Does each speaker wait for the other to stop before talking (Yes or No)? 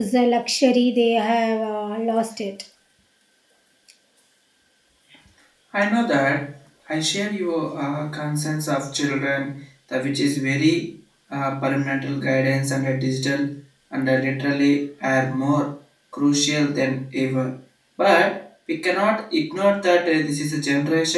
Yes